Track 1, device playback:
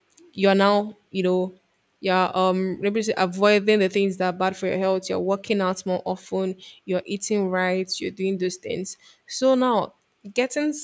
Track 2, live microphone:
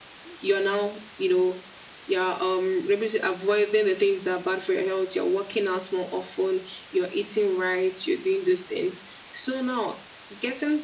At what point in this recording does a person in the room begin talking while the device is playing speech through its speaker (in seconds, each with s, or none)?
none